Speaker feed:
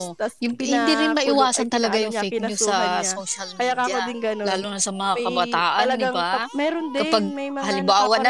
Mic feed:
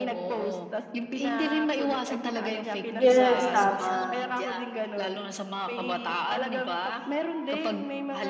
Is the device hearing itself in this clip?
Yes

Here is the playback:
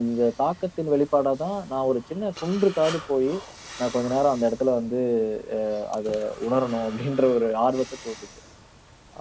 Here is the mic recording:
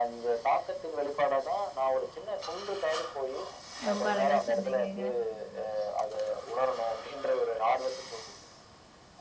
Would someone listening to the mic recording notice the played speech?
Yes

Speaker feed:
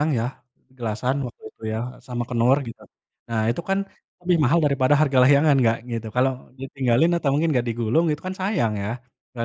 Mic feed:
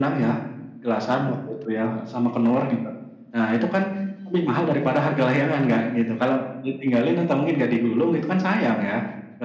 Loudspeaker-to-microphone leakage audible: Yes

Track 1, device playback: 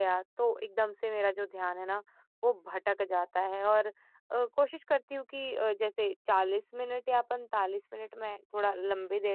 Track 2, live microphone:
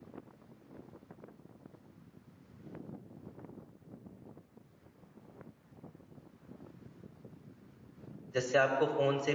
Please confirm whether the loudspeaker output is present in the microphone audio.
No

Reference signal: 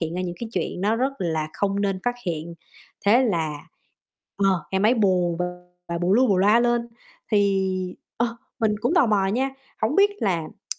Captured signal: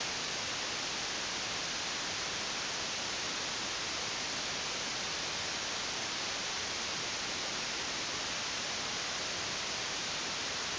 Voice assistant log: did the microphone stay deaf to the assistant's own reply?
Yes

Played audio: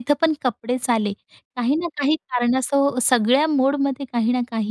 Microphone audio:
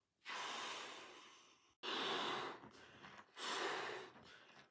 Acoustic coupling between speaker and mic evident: No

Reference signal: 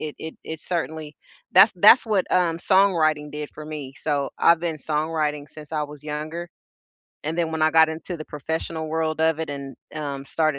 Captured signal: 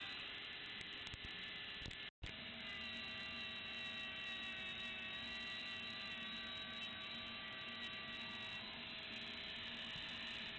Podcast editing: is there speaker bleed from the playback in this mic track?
No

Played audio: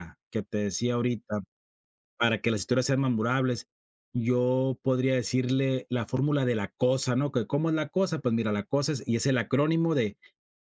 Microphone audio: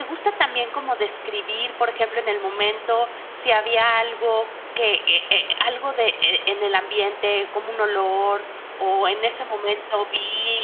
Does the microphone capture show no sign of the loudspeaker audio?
Yes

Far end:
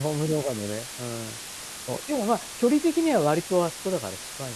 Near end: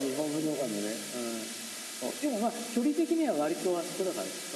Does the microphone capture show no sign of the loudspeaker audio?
No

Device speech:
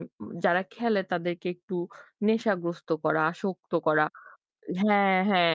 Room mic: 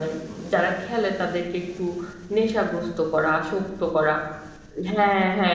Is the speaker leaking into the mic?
Yes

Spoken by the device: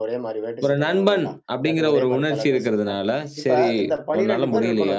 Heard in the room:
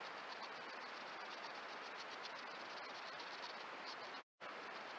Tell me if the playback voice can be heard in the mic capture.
No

